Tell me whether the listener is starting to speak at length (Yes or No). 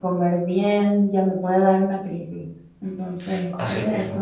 Yes